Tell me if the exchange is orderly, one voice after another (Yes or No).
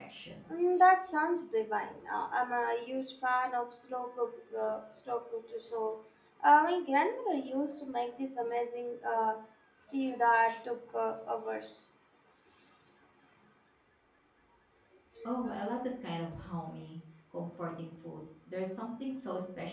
Yes